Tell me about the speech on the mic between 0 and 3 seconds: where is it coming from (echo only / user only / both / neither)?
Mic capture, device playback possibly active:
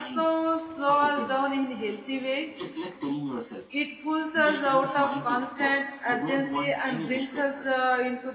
both